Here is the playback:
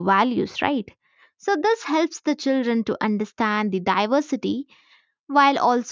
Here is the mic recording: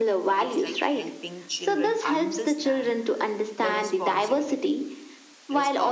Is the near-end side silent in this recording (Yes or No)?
No